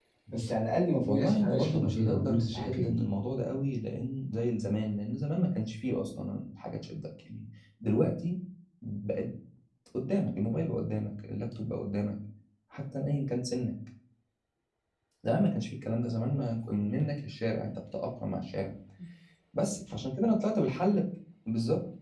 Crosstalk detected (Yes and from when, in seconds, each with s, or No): Yes, from 1.1 s